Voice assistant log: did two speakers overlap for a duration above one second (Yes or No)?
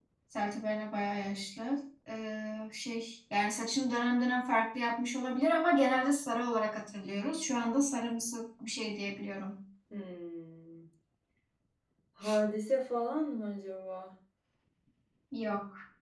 No